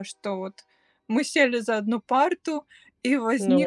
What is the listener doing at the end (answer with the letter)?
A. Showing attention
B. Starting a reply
A